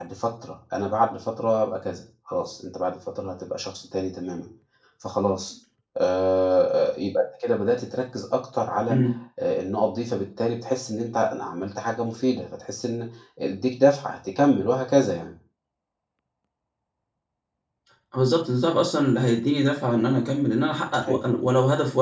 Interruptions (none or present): none